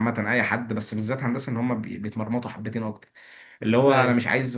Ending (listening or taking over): listening